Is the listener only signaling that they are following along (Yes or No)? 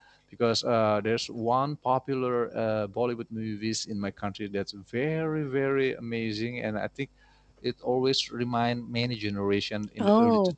Yes